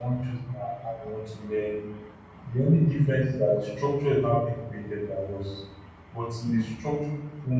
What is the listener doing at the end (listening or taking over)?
listening